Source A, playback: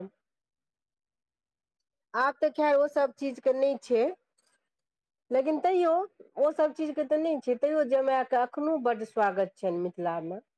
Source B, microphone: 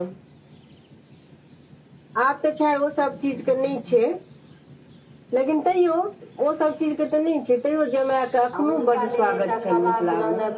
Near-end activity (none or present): present